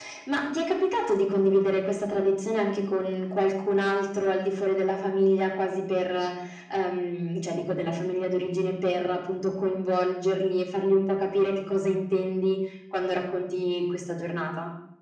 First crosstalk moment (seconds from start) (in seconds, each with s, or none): none